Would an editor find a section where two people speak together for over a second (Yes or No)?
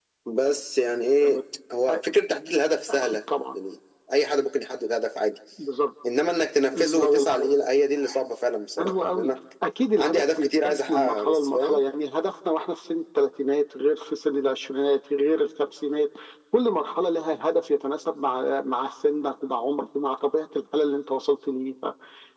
Yes